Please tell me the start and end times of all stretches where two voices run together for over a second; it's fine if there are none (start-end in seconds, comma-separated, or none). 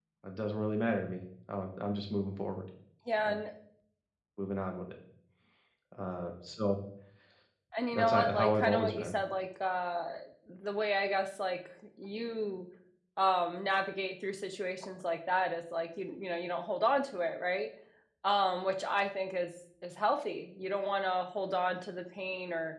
7.9-9.1